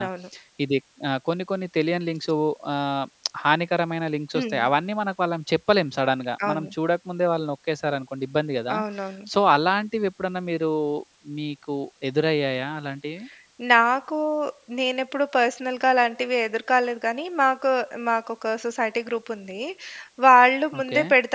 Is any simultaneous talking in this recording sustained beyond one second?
No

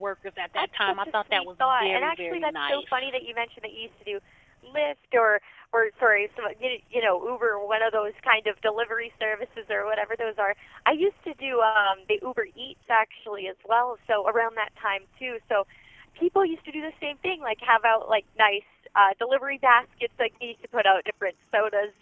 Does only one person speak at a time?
No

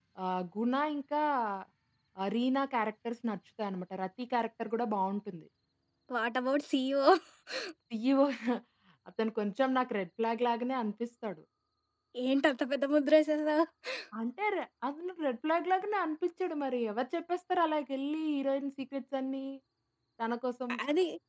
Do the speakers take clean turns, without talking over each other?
Yes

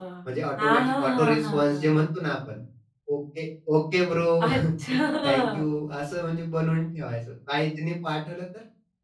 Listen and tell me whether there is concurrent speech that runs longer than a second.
Yes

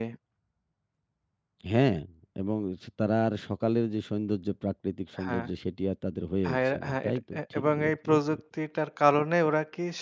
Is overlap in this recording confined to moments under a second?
No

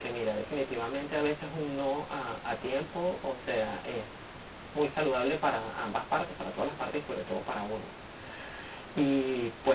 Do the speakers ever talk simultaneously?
No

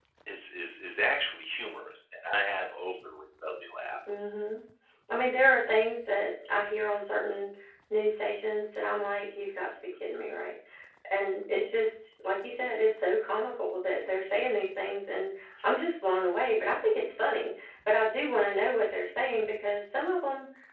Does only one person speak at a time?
Yes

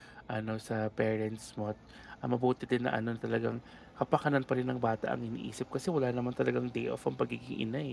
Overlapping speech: No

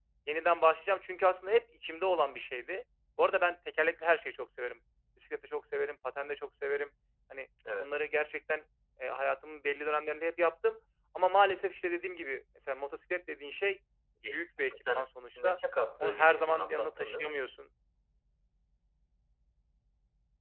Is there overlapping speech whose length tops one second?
Yes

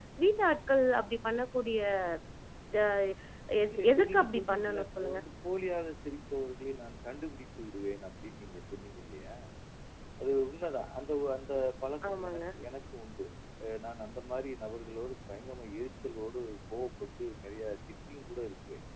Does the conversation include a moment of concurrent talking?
Yes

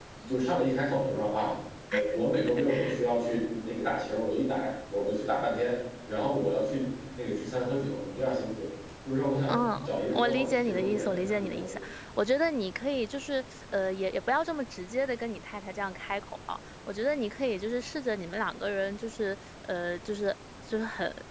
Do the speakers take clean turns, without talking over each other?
No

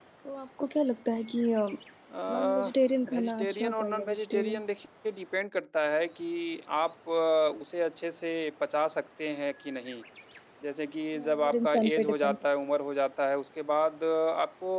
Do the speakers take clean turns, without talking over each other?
No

